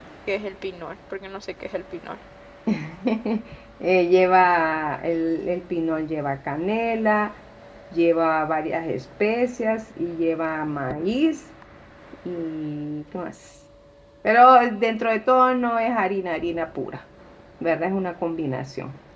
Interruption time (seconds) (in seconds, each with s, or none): none